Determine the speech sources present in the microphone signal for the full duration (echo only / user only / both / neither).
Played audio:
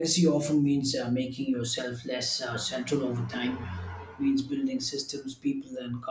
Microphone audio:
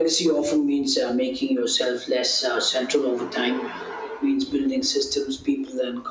echo only